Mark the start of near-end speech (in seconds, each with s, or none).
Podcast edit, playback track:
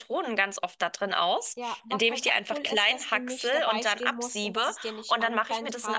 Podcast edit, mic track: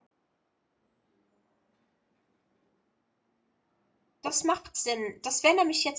4.2 s